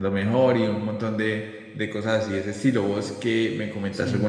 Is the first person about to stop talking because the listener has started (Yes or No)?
No